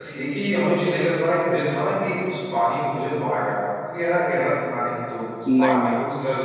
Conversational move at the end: listening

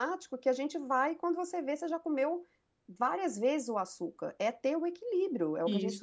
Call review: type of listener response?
taking over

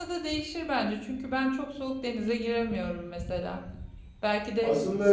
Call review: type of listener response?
listening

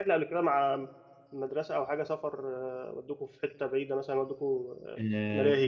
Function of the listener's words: taking over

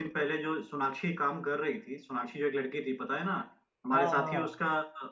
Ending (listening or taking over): listening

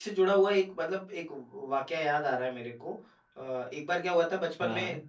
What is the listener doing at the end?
listening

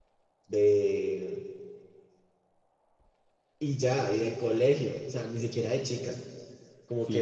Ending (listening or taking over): listening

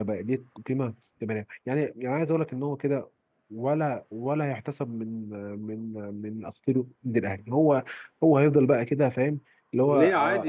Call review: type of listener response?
taking over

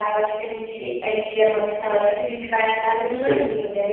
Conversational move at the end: listening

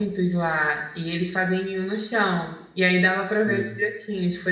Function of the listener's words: listening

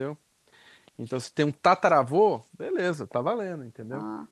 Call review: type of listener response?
listening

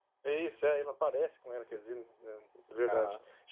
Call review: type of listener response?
taking over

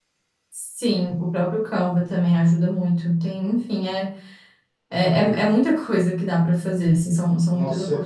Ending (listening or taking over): taking over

